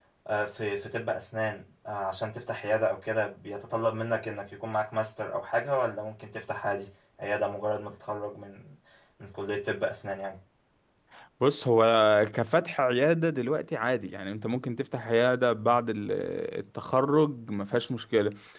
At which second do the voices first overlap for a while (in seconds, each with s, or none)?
none